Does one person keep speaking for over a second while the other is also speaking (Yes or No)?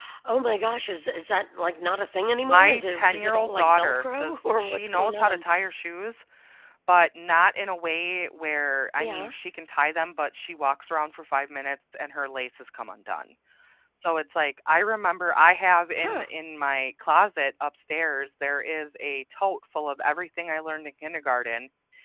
Yes